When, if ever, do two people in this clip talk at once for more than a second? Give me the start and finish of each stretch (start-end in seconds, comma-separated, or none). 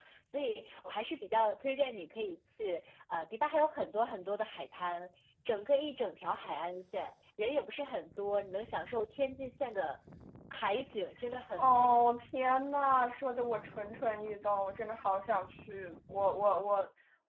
none